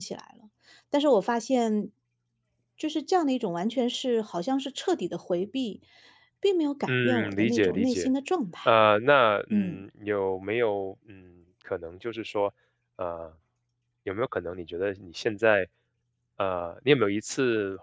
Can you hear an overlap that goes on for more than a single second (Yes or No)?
Yes